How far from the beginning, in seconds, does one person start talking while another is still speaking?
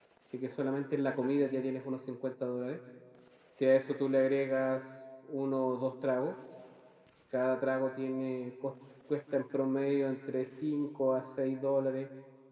none

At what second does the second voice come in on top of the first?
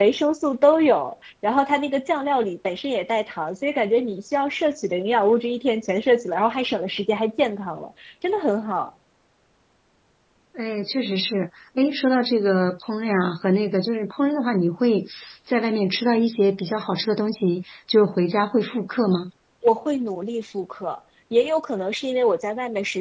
none

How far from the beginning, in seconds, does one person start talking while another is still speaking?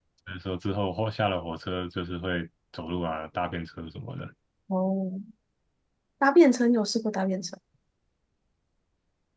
none

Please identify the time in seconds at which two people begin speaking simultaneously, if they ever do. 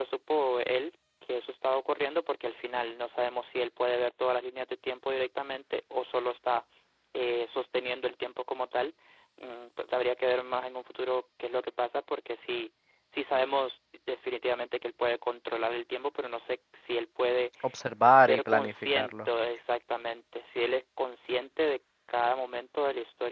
18.1 s

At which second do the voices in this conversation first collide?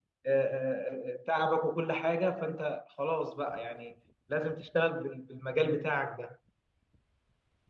none

